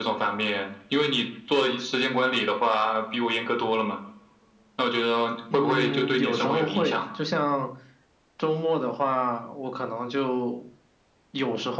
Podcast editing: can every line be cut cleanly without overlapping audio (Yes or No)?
No